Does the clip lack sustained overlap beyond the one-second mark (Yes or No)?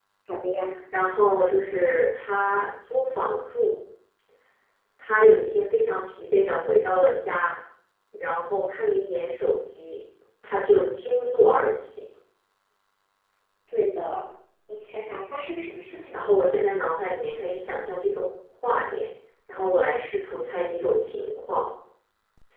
Yes